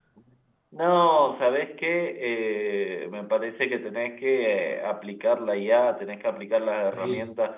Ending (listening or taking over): listening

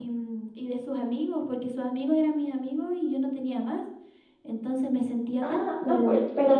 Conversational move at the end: taking over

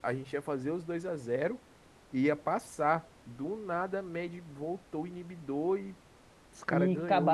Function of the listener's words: taking over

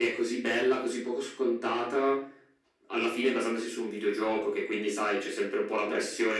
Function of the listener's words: listening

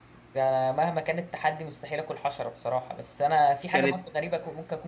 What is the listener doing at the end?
listening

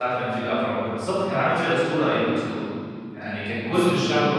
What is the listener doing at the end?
listening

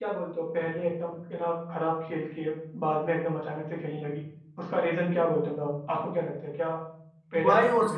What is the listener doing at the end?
taking over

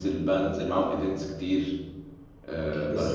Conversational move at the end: taking over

